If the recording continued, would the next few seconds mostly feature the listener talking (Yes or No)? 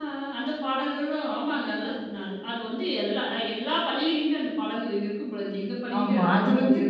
Yes